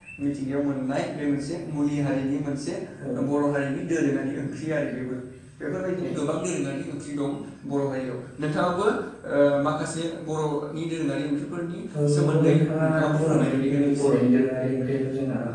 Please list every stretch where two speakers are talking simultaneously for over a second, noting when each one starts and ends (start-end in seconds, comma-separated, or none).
12.1-14.1